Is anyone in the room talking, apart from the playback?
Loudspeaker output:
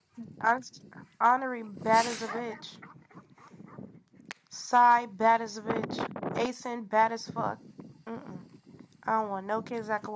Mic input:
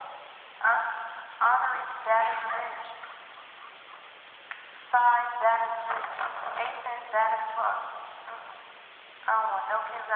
No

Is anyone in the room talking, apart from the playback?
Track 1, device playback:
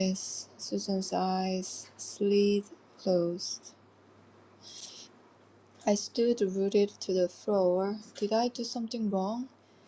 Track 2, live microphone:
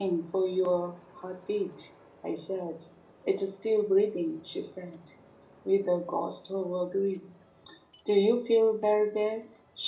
Yes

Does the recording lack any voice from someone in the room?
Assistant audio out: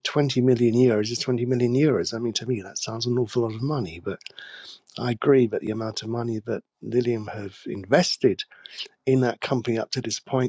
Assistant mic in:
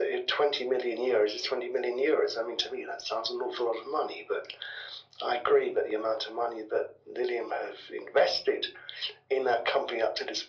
Yes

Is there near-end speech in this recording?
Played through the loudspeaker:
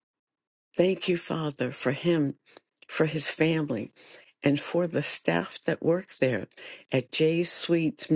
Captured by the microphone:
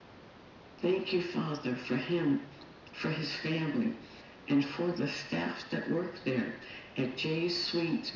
No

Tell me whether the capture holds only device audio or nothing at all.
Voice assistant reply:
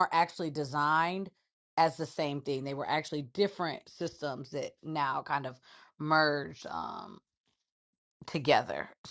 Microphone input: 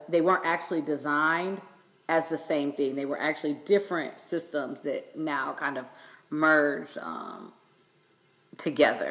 Yes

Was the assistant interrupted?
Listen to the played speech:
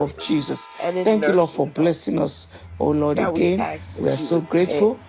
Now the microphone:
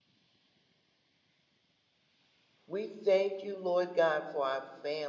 Yes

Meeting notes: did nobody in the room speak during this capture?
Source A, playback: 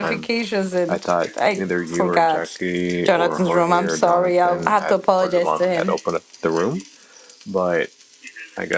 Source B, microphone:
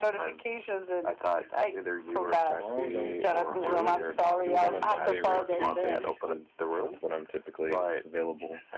No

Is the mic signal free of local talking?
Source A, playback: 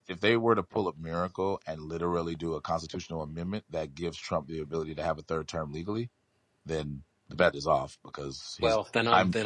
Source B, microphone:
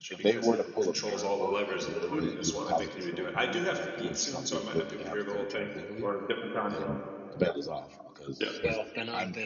No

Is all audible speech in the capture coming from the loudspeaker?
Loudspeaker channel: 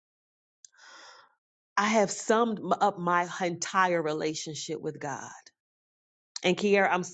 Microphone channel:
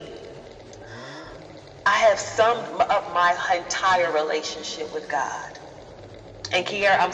Yes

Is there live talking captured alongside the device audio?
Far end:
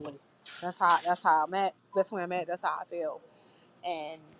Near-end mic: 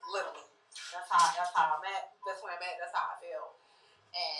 No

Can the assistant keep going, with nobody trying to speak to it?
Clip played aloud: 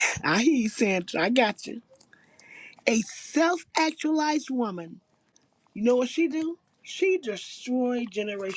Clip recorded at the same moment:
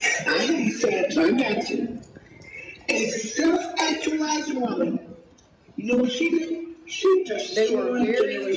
No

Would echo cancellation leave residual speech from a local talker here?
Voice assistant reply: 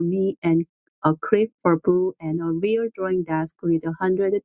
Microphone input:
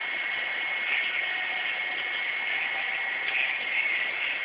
No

